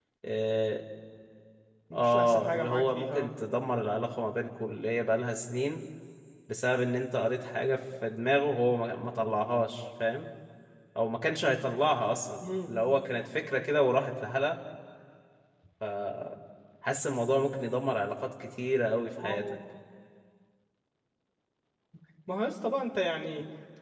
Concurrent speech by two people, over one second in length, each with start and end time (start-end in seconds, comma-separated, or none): 1.9-3.3